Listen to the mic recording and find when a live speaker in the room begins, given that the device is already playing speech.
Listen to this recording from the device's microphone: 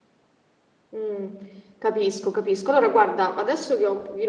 0.9 s

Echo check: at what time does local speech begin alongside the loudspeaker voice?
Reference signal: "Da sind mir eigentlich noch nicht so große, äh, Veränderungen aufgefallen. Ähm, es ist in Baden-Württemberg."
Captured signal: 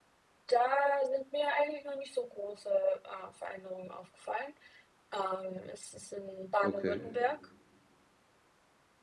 6.6 s

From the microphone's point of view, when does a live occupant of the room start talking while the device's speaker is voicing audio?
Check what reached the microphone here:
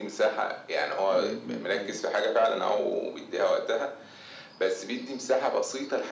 1.1 s

